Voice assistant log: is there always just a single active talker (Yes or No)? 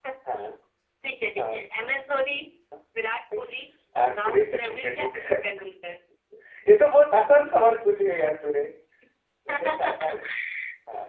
No